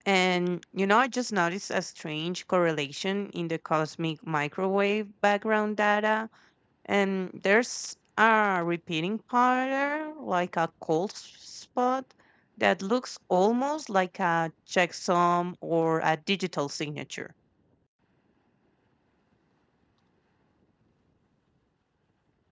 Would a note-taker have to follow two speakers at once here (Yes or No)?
No